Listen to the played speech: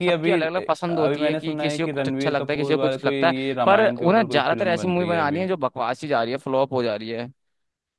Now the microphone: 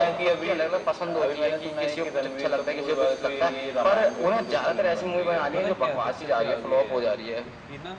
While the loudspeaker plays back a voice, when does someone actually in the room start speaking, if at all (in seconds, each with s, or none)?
5.5 s